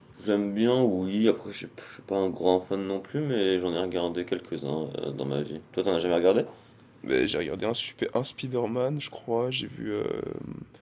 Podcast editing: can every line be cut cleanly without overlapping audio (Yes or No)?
Yes